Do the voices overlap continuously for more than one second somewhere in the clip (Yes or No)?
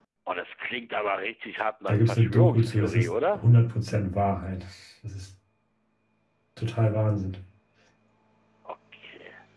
Yes